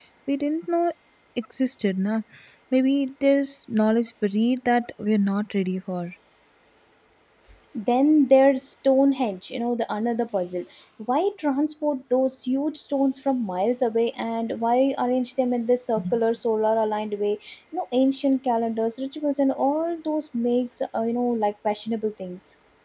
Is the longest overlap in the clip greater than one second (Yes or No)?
No